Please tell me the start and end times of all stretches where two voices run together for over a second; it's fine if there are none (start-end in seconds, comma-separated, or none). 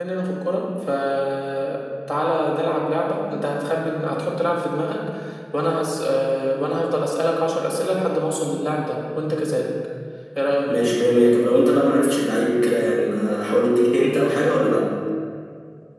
none